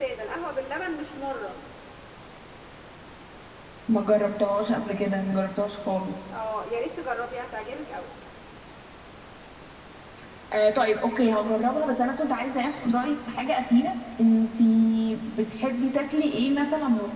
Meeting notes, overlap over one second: none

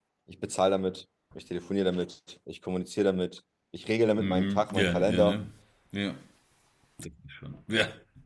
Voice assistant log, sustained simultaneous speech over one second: present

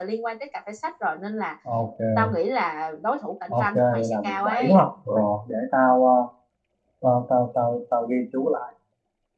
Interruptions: present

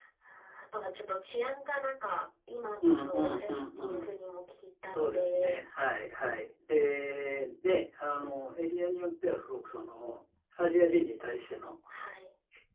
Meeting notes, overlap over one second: present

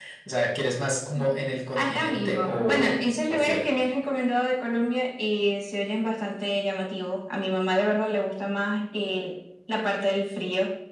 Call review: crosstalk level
present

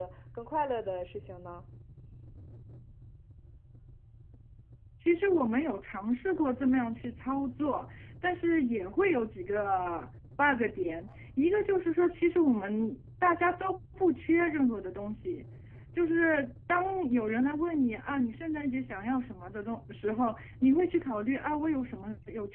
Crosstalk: none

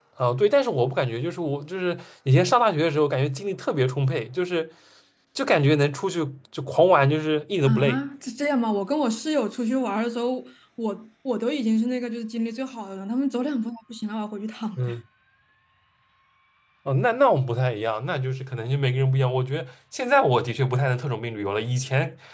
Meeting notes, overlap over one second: none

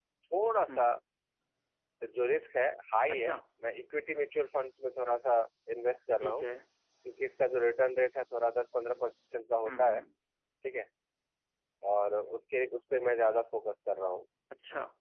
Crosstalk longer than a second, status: none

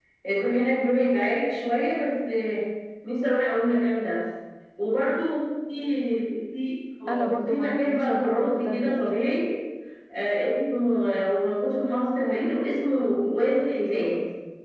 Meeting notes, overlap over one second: present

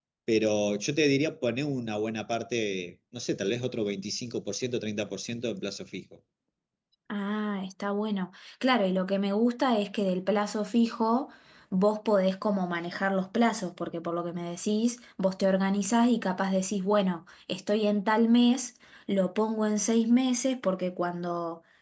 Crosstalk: none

